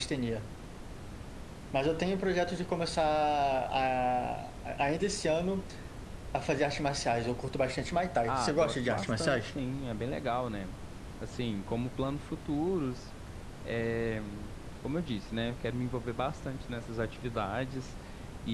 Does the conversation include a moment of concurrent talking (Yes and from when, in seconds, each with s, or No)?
Yes, from 8.3 s